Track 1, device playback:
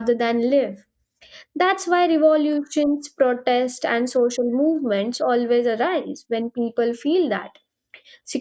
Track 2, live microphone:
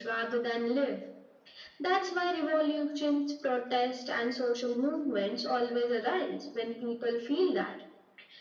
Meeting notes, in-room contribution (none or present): none